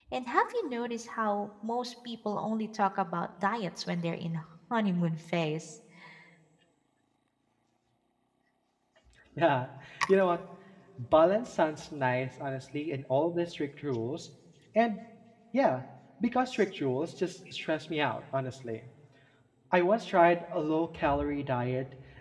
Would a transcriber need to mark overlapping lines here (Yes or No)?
No